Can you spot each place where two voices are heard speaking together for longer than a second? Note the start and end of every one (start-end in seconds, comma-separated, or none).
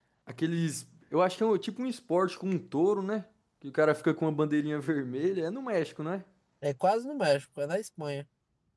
none